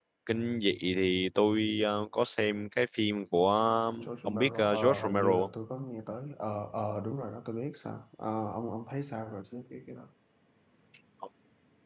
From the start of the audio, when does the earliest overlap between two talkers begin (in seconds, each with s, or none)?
4.0 s